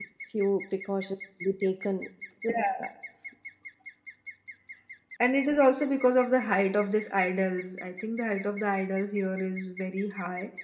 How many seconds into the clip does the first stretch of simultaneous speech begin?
none

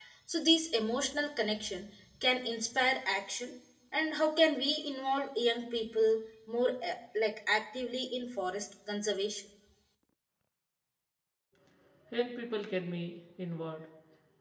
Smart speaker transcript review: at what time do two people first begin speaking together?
none

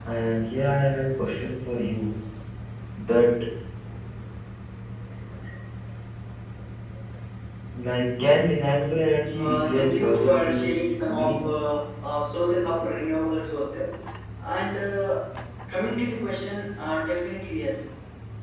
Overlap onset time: 9.3 s

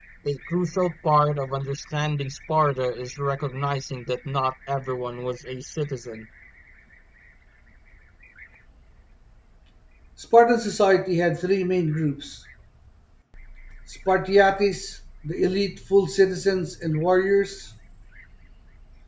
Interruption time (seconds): none

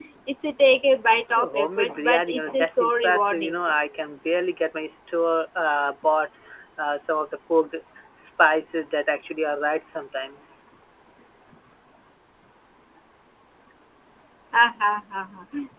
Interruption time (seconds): 1.1 s

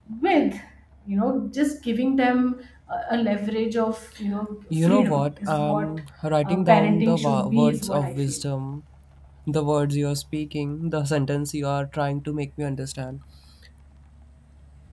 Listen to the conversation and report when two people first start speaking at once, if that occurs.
4.7 s

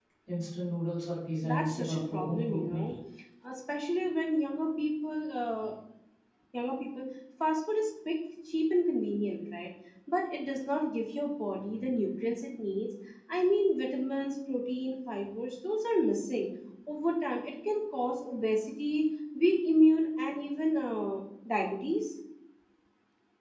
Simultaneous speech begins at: 1.4 s

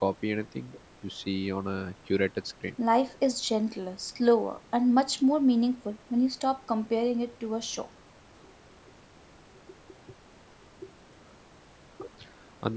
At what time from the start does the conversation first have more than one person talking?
none

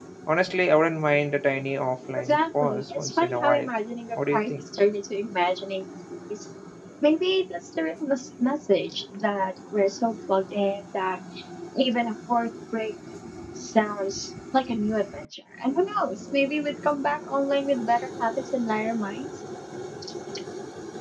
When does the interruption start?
2.3 s

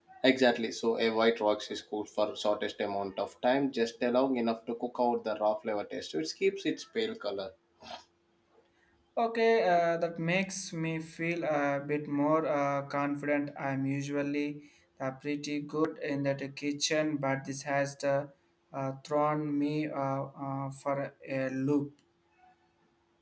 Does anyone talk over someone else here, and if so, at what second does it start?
none

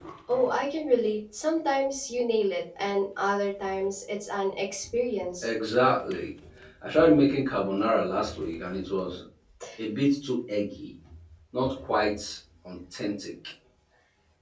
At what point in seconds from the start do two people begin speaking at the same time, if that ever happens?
none

